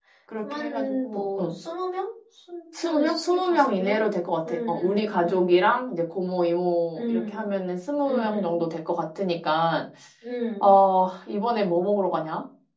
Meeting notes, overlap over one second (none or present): present